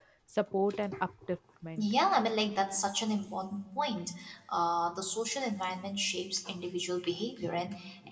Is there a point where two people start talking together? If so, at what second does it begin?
none

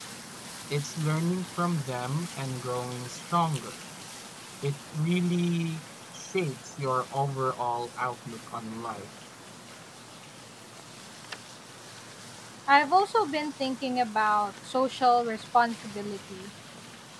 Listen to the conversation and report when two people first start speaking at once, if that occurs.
none

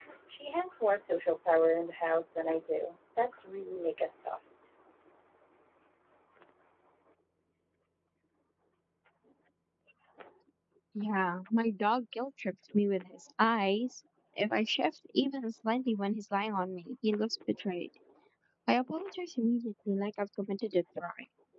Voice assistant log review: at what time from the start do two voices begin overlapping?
none

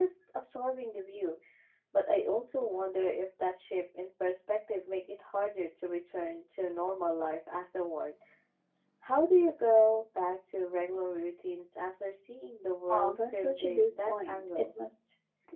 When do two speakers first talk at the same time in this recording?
12.9 s

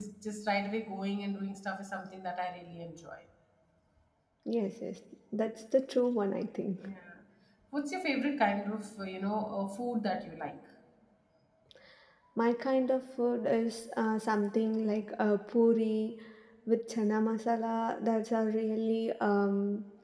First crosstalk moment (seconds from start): none

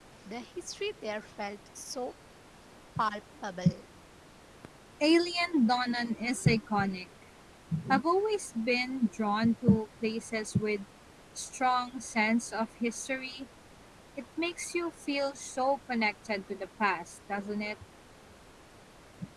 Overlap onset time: none

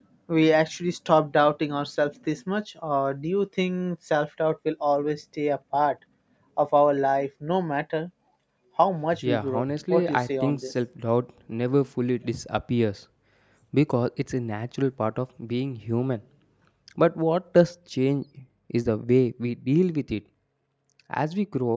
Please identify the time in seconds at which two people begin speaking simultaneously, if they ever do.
9.2 s

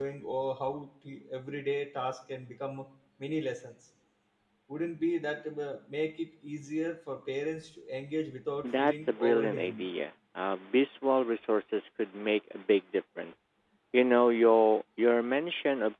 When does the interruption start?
8.6 s

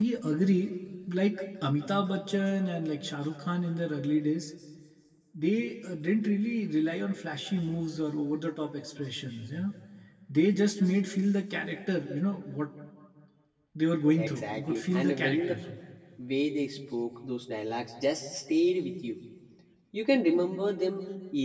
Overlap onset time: 14.2 s

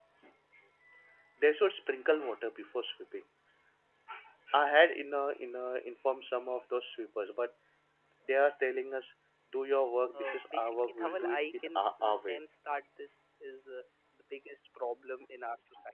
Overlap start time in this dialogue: 10.1 s

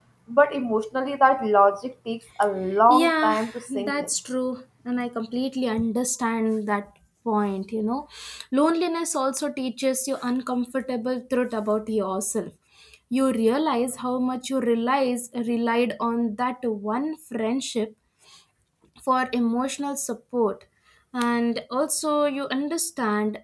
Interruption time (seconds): 2.9 s

